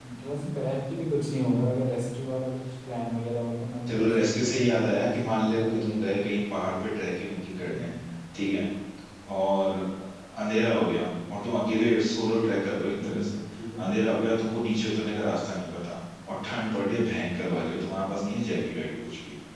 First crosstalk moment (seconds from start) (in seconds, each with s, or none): 3.9 s